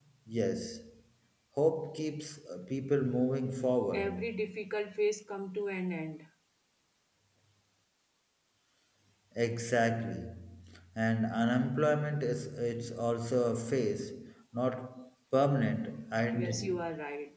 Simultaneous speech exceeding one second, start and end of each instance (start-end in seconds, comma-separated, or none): none